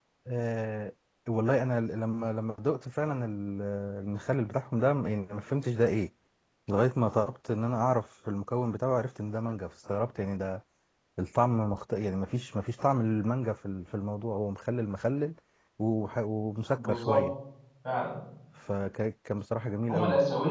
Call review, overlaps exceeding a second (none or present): none